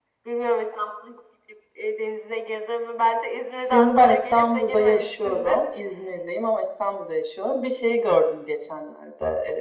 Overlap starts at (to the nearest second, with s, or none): 4 s